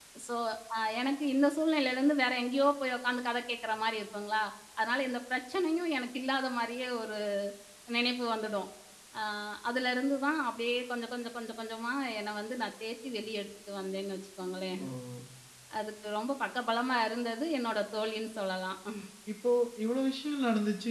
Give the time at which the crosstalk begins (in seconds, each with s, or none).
none